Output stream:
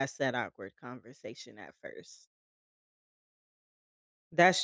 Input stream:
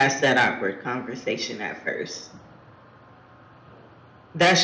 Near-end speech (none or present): none